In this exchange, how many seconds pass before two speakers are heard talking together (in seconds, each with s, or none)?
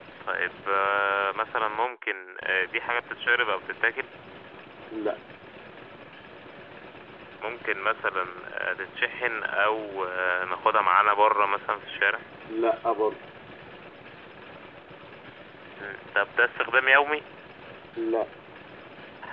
none